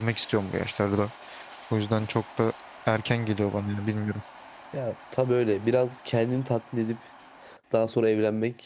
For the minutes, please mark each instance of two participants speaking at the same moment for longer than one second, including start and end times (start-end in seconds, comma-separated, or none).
none